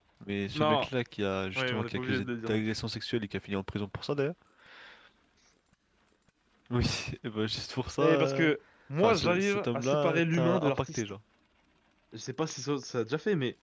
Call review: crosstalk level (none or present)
present